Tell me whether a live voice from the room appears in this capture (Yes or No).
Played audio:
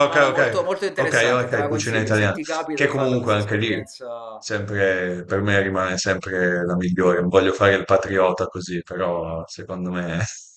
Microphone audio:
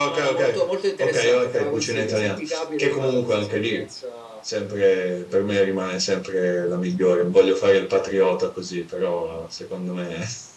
No